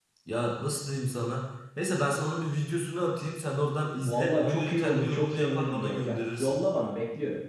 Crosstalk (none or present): present